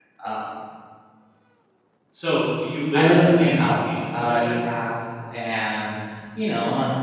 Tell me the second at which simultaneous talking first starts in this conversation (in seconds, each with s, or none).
2.9 s